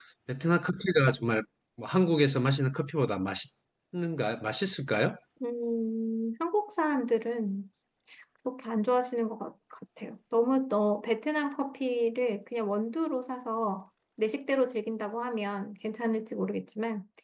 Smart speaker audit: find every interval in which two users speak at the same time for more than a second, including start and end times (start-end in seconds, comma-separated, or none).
none